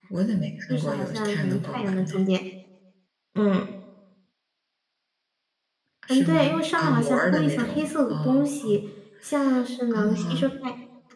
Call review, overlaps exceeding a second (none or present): present